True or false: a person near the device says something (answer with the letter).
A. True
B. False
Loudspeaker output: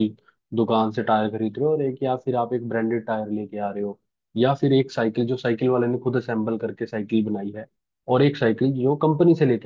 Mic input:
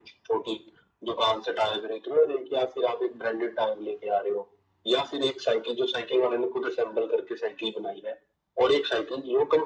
B